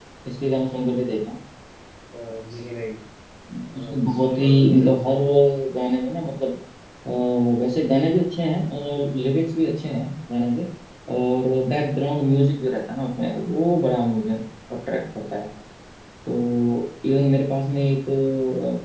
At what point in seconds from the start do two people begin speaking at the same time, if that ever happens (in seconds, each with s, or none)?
3.8 s